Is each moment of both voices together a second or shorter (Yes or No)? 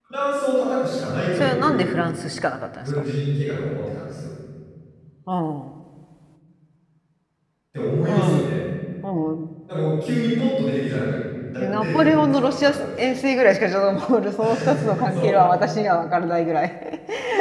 No